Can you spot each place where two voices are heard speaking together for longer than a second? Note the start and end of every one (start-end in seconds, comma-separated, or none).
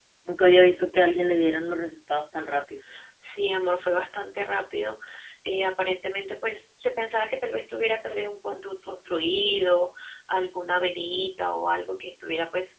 none